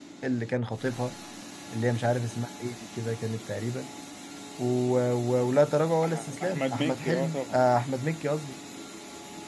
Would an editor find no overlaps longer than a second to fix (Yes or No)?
No